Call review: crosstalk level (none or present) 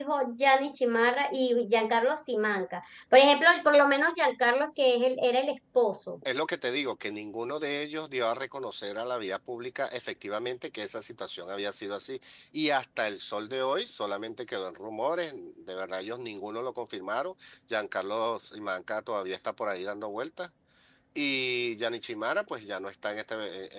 none